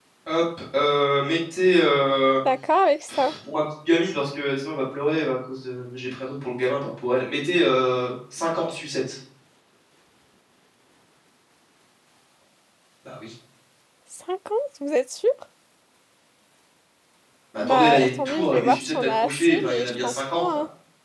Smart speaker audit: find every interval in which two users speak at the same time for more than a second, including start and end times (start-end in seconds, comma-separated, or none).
17.6-20.4